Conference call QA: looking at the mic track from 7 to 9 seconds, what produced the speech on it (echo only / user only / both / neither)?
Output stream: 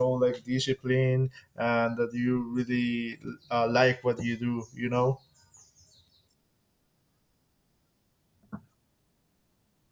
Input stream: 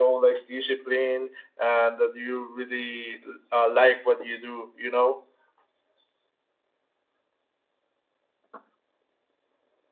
neither